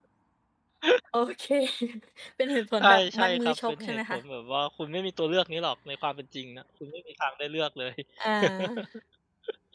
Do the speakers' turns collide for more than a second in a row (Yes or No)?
Yes